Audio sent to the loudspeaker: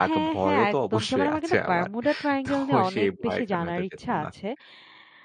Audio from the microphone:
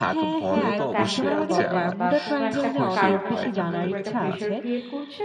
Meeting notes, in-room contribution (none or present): present